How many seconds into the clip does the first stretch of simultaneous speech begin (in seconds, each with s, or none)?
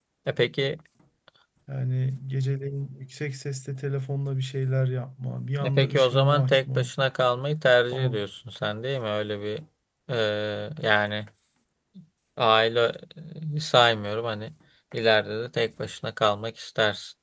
5.6 s